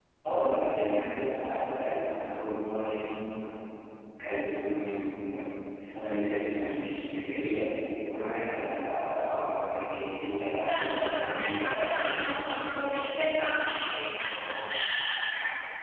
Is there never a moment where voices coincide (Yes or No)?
No